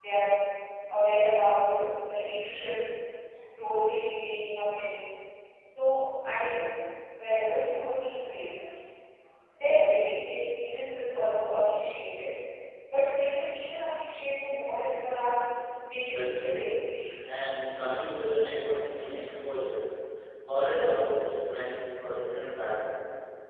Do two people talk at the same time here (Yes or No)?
Yes